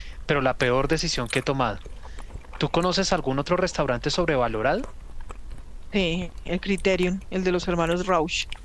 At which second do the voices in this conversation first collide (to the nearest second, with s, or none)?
none